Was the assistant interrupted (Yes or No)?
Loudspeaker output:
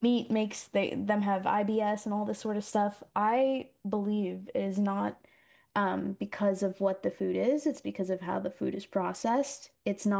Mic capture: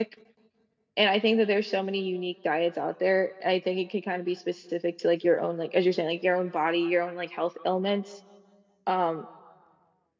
Yes